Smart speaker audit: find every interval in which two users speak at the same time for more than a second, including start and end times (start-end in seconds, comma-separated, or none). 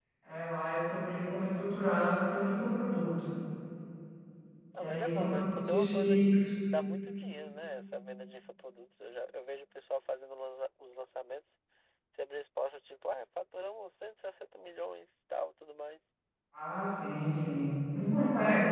4.8-6.2